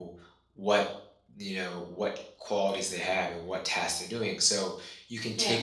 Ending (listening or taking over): listening